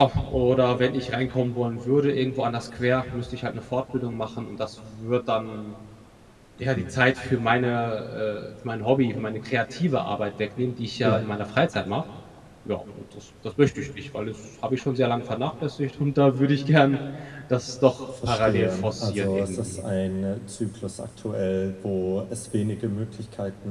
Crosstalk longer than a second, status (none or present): present